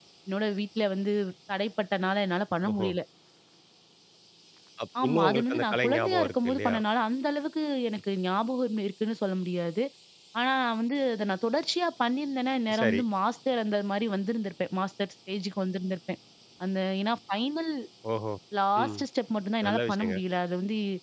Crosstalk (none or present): present